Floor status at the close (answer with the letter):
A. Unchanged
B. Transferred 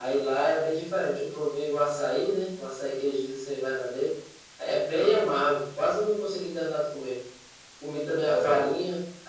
A